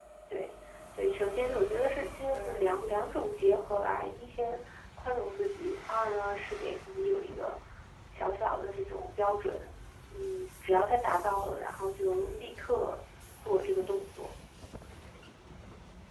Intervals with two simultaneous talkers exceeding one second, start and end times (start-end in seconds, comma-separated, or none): 1.4-2.8